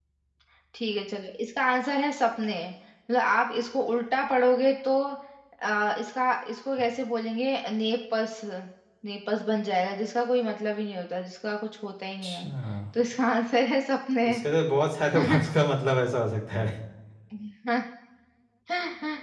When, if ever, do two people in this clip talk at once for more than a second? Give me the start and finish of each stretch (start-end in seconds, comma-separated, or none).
none